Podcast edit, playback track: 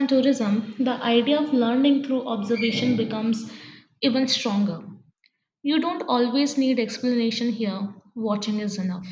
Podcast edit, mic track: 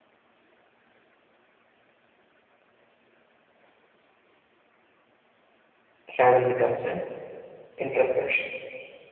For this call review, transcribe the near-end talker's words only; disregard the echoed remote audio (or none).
Travel becomes an introspection.